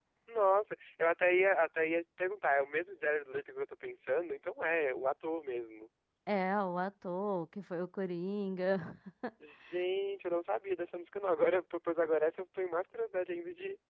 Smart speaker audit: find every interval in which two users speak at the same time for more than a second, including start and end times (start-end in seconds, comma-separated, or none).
none